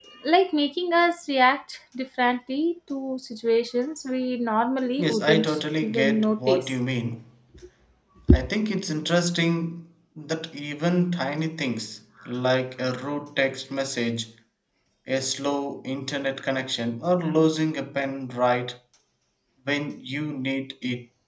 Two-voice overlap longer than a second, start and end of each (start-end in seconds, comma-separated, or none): 5.0-6.7